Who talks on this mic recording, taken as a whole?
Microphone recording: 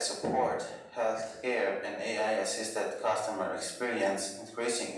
echo only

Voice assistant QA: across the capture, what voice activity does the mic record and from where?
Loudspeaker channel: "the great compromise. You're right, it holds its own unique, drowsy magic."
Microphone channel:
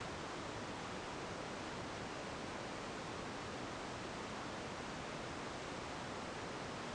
neither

